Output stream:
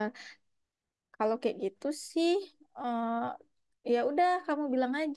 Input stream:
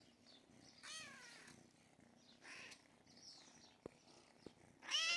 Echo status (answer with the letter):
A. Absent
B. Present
A